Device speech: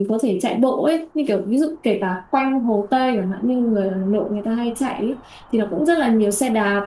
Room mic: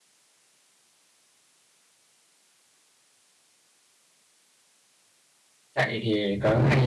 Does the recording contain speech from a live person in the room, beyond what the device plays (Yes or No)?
Yes